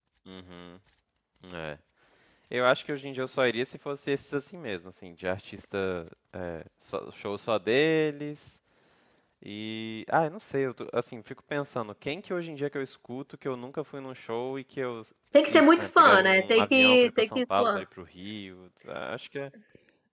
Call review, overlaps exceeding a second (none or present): present